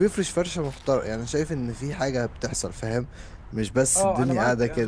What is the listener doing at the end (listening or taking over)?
taking over